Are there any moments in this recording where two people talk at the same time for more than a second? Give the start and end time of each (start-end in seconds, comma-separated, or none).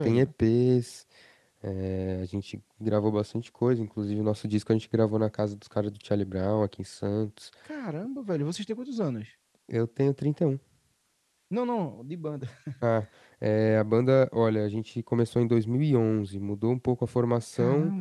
none